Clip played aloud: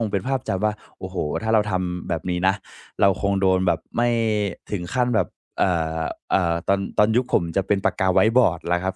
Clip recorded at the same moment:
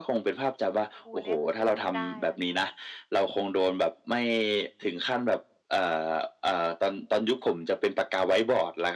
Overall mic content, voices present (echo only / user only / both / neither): both